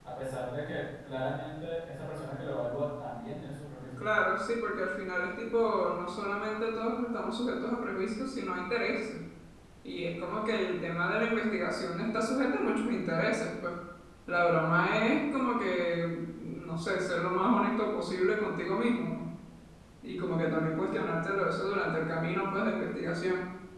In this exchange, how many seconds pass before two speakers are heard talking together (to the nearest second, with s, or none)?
none